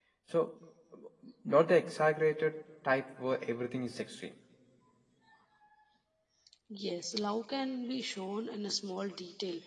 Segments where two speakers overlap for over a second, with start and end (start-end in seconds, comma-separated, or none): none